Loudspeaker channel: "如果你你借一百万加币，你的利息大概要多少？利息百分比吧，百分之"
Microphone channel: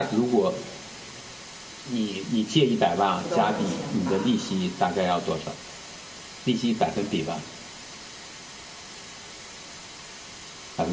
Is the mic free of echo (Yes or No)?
No